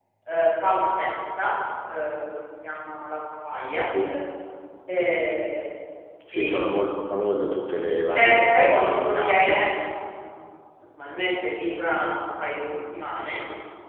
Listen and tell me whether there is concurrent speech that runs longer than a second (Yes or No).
Yes